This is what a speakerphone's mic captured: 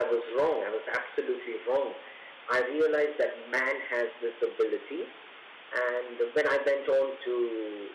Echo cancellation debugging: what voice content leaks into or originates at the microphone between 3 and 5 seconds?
echo only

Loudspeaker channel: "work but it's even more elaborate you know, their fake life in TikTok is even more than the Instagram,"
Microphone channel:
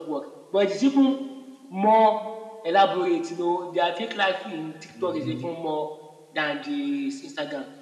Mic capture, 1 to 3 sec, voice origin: echo only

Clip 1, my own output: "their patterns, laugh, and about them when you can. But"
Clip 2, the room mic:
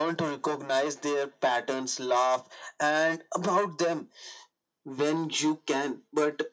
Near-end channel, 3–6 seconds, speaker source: echo only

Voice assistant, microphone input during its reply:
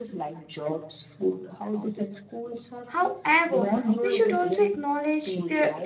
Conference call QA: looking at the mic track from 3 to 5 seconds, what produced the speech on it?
both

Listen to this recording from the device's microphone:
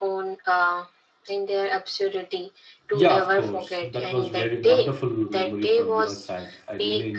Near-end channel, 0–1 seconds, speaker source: echo only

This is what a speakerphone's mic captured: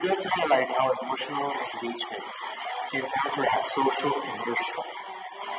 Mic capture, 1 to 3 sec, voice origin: echo only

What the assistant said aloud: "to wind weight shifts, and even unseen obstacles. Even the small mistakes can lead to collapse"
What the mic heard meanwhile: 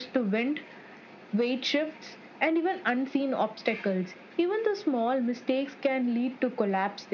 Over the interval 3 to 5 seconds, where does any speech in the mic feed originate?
echo only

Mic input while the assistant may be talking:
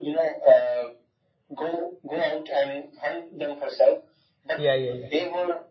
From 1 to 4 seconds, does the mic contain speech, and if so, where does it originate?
echo only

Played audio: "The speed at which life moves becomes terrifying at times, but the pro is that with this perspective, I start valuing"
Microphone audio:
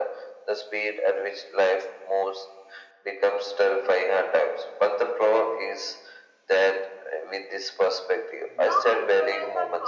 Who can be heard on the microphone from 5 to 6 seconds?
echo only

